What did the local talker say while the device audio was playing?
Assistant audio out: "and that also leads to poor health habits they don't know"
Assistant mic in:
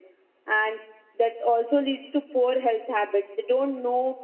none

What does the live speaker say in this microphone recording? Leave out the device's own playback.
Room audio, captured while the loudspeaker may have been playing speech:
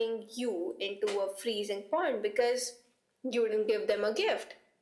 none

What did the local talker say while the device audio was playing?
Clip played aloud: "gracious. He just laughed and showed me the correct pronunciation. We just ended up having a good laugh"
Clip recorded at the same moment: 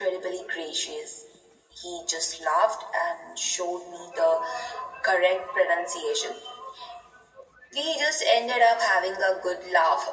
none

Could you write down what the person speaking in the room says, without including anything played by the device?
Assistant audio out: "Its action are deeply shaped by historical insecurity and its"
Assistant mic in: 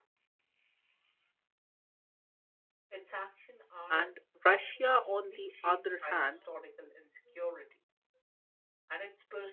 And Russia, on the other hand,

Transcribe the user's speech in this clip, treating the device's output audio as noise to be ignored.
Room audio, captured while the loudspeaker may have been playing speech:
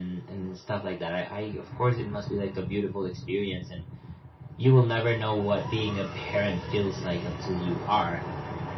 none

